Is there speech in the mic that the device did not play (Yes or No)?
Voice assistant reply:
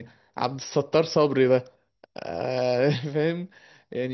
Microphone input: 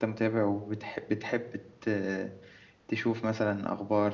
Yes